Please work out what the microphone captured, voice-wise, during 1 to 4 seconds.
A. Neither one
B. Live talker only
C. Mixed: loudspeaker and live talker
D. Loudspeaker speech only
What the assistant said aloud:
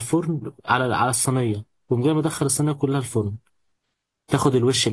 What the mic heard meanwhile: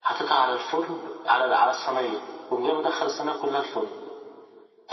D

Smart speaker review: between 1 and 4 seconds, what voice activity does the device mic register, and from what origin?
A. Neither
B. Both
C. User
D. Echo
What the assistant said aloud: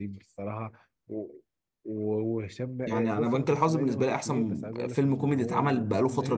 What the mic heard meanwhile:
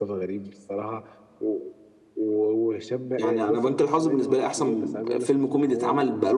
D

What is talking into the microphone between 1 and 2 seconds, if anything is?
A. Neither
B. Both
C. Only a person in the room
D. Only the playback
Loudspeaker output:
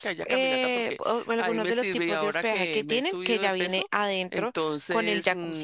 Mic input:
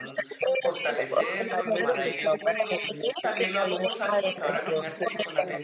B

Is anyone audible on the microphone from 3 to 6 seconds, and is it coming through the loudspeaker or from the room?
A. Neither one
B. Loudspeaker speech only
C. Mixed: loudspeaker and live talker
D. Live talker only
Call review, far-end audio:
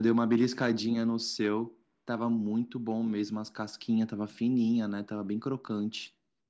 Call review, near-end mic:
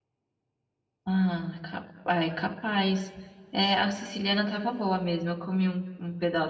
D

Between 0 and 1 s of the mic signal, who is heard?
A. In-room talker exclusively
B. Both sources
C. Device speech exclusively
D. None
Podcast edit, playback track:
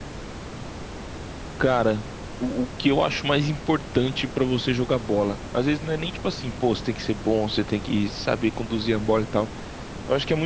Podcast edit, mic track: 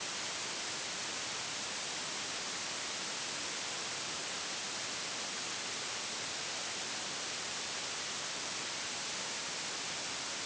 D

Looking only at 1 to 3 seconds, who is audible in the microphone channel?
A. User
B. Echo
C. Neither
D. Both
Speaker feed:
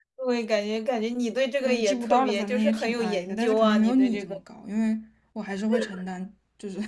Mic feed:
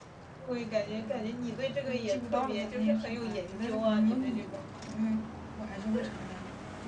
B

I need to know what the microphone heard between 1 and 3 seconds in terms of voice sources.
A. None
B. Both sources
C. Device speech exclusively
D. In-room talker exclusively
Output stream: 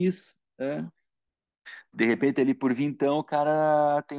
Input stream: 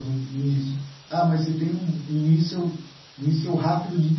D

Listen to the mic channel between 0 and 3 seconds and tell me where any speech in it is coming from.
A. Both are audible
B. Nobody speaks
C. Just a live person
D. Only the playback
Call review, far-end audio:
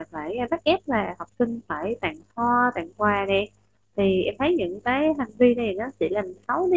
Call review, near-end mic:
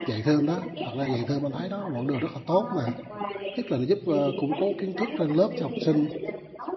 A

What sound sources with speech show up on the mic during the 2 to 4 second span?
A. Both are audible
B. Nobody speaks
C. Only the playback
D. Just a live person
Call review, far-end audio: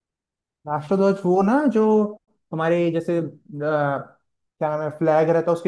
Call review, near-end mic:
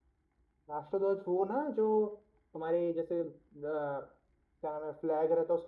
C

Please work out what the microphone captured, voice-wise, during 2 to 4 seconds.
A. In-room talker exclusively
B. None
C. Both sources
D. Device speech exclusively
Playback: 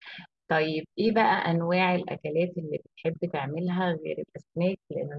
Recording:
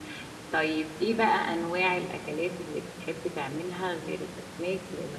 D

